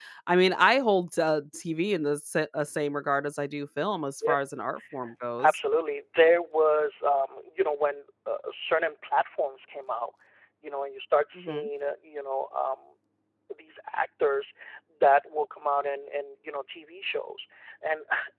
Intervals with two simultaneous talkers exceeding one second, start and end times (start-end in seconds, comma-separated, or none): none